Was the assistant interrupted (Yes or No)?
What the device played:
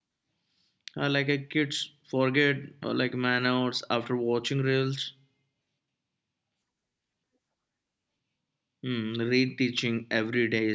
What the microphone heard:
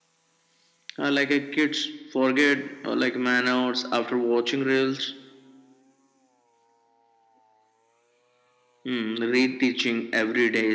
No